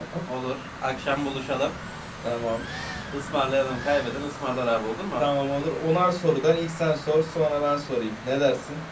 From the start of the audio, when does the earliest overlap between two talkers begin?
none

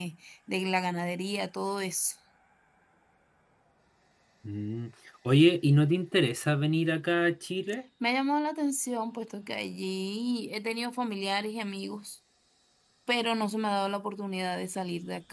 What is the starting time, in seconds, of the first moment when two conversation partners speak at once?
none

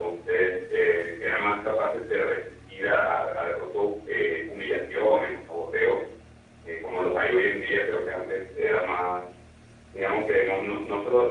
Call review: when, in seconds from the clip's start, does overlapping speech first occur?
none

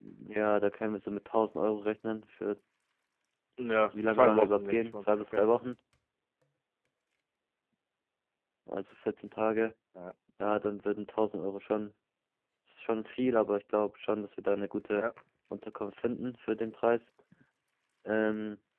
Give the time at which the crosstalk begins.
4 s

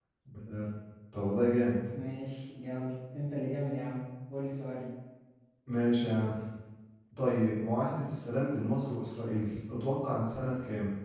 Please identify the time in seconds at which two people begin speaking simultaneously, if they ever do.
none

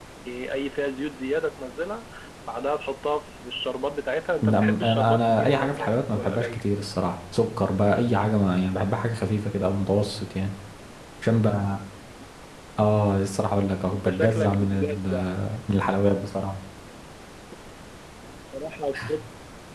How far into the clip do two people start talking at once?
4 s

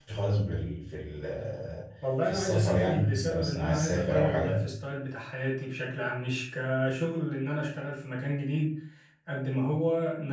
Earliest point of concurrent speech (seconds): 2 s

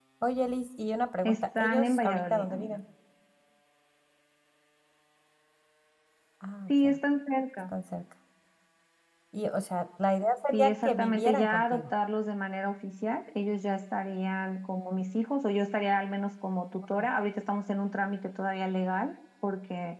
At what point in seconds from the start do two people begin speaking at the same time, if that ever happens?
1 s

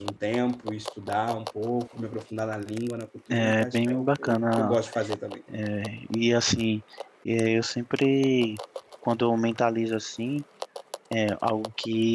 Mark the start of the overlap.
3 s

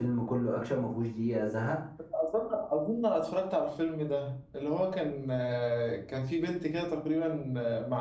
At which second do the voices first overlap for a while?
none

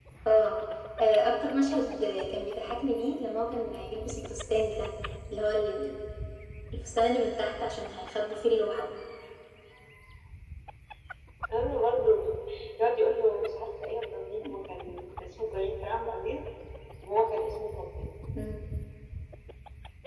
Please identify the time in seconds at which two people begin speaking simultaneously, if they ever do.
none

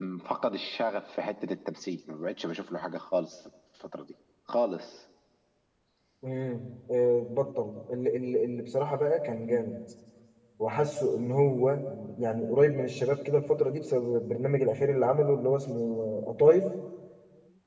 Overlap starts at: none

